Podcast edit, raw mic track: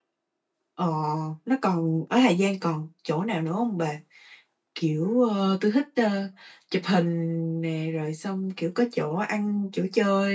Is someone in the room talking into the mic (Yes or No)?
Yes